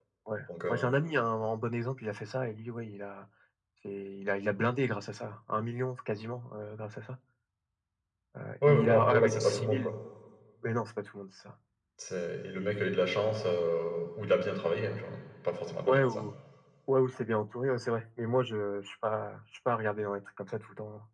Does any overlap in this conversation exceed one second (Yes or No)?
Yes